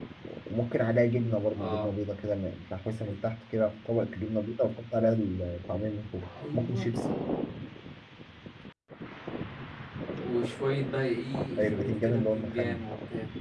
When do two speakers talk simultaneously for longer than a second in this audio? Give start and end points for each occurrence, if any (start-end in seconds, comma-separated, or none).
11.6-12.8